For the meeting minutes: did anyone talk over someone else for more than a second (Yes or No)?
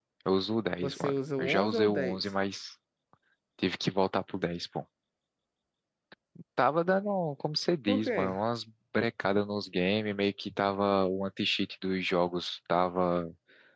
Yes